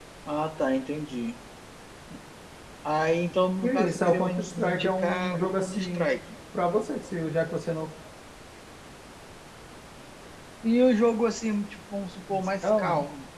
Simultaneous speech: Yes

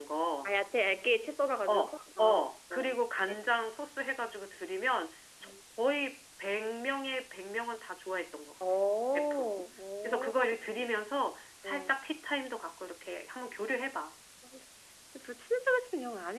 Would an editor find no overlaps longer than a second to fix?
No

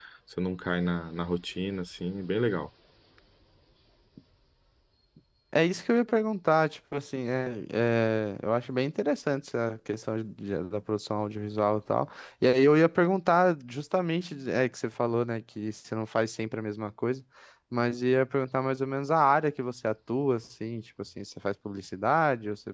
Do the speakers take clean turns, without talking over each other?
Yes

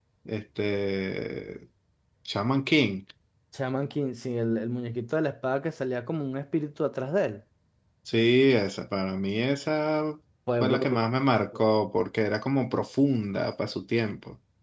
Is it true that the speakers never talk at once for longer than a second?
Yes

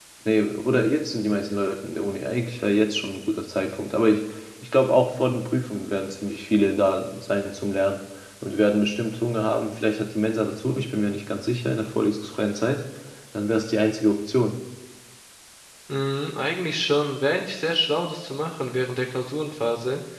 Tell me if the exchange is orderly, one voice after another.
Yes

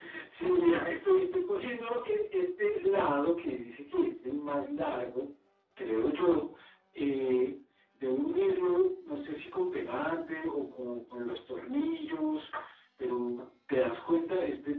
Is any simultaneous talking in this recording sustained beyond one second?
No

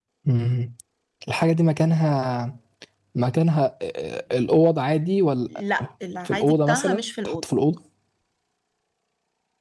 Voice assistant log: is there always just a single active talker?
No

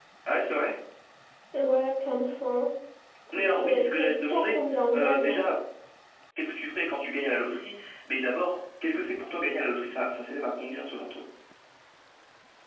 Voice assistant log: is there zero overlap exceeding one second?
No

